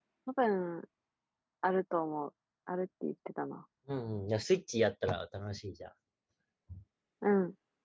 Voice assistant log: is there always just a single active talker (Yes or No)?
Yes